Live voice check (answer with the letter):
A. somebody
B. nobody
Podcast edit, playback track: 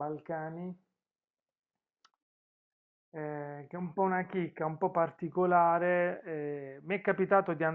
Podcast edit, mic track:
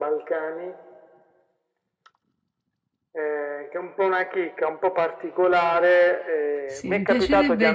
A